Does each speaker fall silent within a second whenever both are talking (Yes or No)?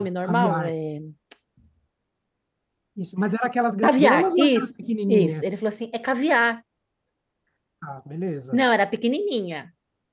No